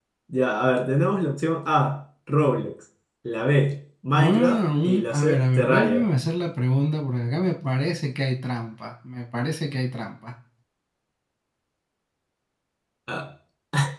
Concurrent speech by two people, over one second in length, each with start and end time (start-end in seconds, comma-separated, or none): 4.2-6.0